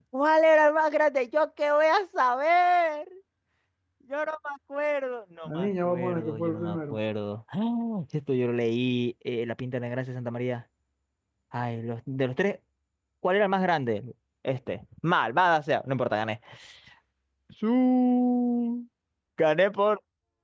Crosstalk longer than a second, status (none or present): present